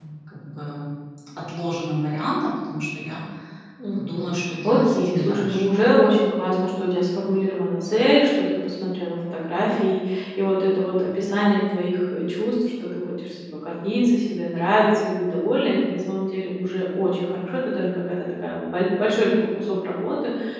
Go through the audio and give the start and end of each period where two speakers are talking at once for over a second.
4.0-5.6

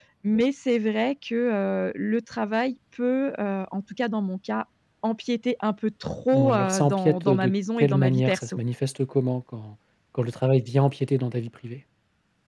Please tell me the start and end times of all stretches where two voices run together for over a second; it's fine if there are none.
6.3-8.6

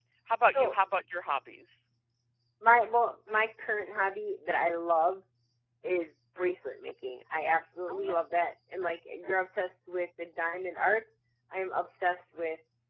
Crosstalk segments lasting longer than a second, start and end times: none

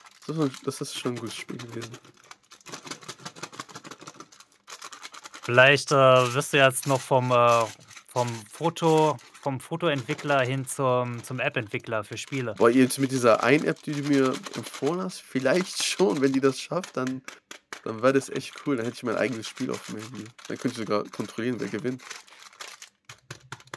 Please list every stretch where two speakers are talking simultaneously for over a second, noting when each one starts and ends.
none

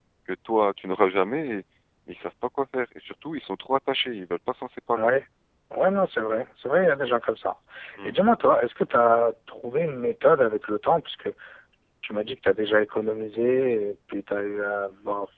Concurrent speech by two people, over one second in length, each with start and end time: none

